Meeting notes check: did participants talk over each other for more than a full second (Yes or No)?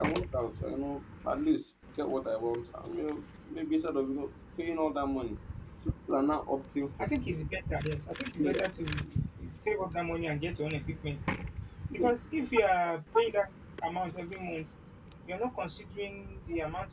No